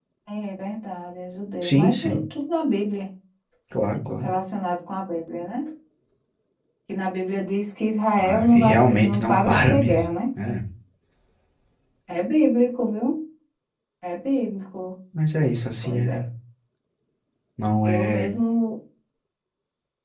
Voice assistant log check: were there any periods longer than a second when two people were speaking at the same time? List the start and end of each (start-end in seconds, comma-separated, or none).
8.2-10.0